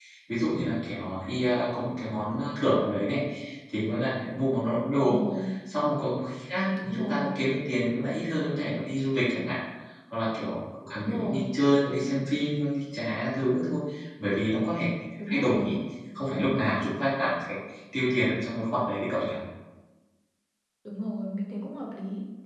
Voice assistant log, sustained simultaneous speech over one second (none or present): none